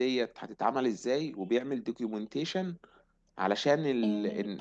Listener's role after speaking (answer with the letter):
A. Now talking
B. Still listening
A